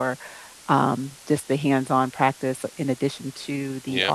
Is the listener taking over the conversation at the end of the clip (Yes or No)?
No